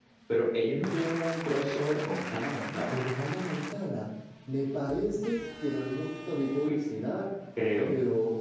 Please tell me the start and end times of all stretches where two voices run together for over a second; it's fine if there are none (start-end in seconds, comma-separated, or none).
none